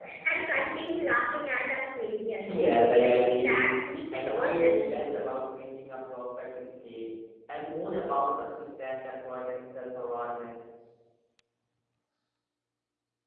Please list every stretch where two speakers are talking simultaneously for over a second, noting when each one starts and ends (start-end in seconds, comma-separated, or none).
2.5-3.7, 4.1-5.3